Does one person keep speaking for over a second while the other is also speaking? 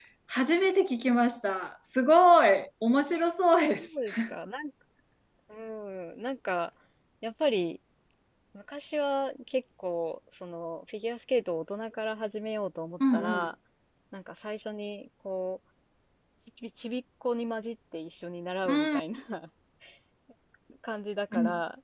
No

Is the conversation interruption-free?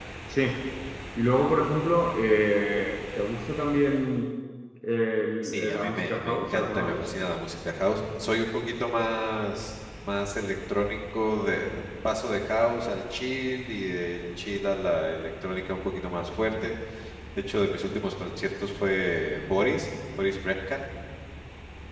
No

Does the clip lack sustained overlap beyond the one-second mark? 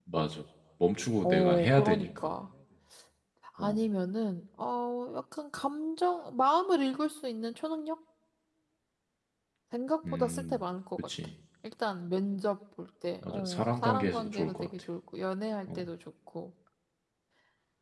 No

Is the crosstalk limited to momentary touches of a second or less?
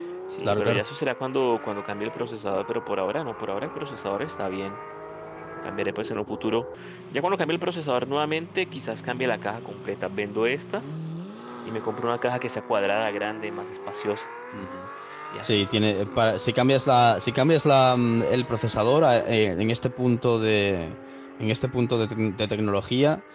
Yes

